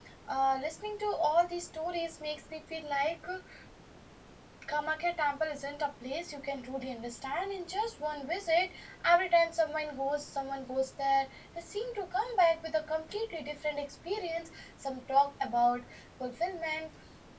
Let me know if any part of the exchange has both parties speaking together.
No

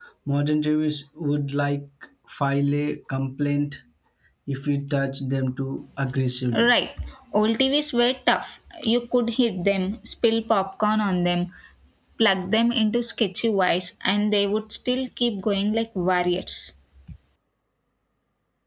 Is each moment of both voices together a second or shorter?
Yes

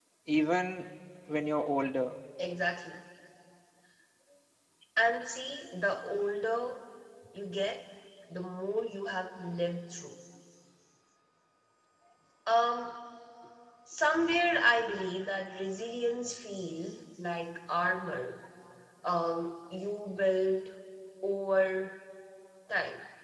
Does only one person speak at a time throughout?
Yes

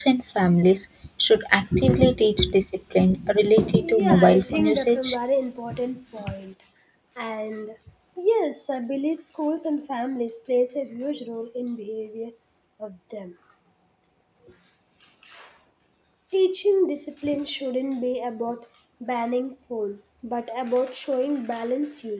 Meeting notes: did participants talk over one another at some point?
Yes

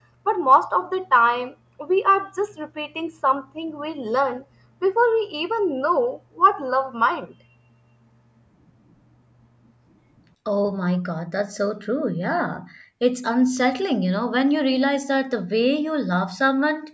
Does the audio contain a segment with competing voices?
No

